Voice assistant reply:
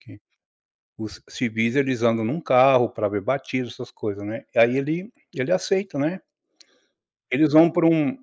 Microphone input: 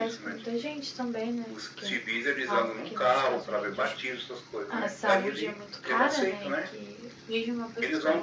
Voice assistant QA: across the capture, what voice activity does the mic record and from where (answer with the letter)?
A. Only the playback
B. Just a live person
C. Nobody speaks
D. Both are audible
D